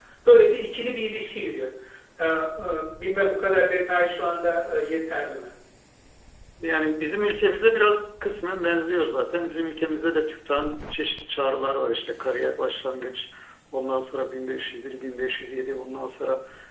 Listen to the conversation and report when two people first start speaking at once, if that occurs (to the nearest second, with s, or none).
none